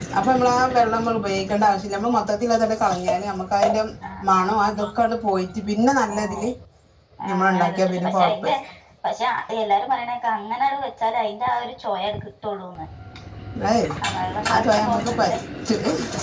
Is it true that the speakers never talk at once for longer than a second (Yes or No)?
No